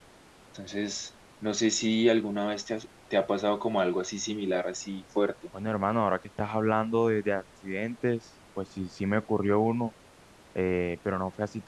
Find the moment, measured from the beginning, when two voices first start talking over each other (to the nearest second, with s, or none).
none